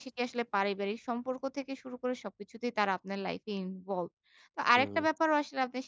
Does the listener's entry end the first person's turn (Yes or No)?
No